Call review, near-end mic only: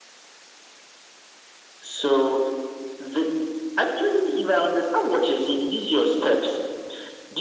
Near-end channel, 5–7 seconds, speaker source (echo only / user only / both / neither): echo only